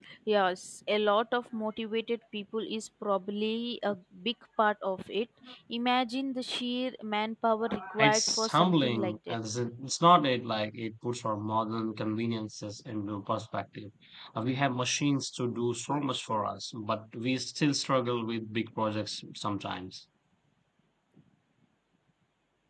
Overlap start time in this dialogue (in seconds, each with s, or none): 8.0 s